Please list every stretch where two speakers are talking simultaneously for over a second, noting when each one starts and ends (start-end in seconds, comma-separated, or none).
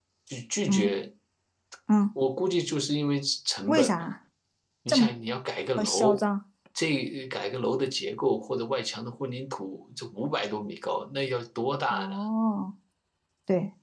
none